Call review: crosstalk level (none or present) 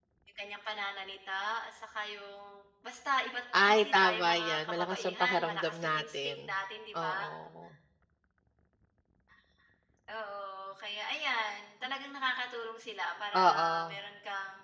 present